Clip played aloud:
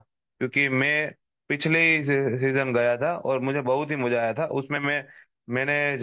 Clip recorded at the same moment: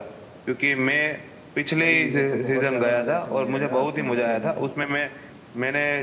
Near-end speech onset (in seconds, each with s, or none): 1.8 s